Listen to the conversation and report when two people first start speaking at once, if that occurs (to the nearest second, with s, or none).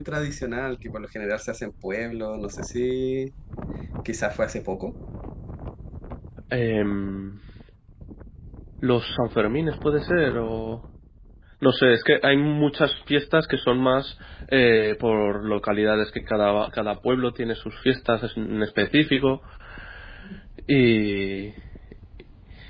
none